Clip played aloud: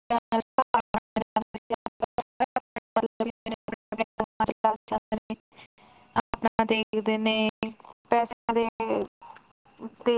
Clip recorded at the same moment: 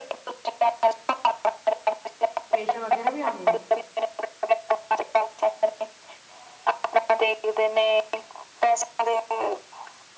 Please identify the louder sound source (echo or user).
echo